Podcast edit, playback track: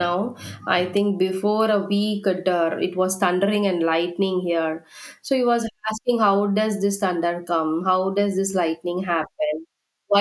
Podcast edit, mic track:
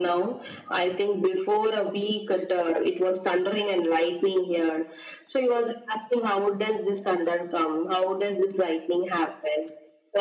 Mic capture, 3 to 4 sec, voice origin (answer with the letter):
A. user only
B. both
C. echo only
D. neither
C